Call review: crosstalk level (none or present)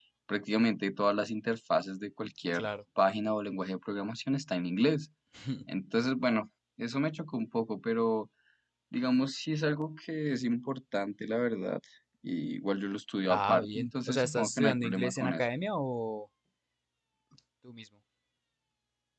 present